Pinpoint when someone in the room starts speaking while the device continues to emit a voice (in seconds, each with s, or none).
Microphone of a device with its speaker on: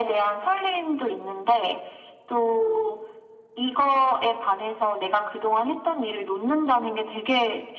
none